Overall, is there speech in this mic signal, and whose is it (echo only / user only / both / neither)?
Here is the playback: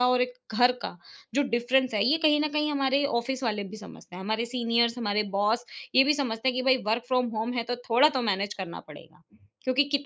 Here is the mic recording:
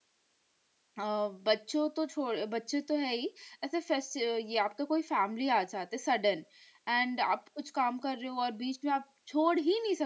user only